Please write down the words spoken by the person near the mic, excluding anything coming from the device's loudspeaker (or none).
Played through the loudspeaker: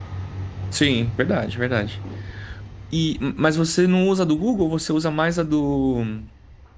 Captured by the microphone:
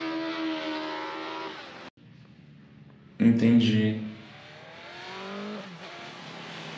entendi.